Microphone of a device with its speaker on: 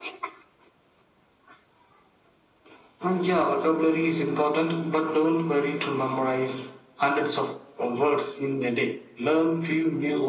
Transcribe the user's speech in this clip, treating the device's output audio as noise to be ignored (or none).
none